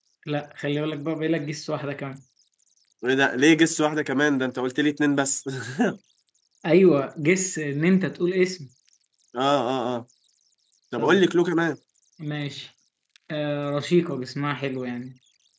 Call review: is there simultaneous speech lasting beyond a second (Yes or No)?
No